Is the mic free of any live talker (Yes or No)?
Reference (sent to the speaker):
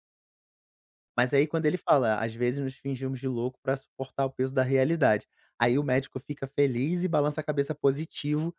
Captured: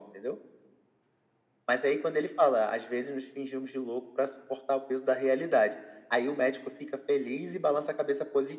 Yes